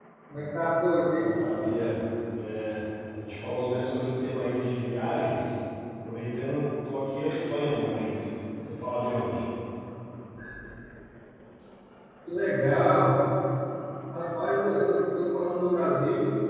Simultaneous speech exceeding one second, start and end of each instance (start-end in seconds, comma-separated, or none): none